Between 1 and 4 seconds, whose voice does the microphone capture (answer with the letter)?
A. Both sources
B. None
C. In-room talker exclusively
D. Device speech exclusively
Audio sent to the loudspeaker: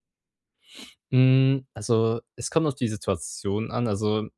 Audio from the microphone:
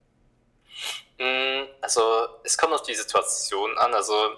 D